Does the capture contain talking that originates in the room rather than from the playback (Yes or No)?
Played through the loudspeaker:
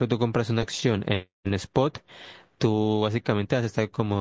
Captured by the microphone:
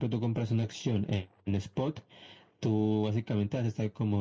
No